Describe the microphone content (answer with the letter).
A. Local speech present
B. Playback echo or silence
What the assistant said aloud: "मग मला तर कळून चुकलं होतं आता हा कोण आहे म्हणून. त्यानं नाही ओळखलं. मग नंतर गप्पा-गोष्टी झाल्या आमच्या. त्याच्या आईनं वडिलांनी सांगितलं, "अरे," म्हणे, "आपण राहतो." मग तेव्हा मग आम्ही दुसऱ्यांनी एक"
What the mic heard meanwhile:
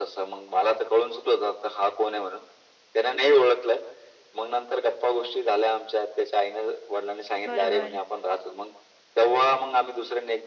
A